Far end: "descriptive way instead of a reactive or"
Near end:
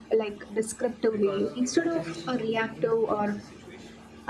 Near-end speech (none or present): present